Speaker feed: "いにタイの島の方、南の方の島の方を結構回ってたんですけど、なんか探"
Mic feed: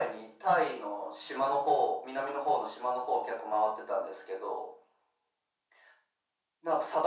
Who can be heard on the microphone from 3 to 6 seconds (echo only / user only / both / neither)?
echo only